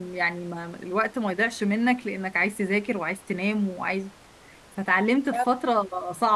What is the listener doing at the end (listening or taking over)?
listening